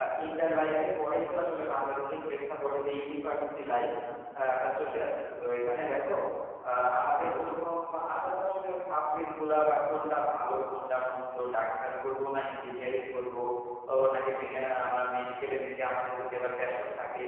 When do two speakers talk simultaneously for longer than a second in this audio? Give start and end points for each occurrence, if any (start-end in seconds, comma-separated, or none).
none